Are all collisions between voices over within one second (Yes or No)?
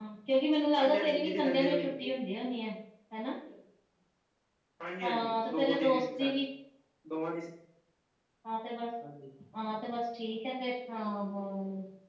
No